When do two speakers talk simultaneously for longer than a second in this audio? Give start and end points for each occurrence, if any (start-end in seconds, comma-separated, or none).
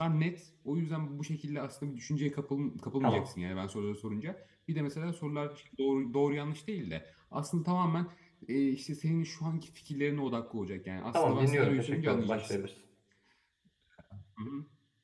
11.1-12.6